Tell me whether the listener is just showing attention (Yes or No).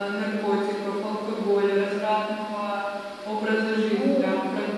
No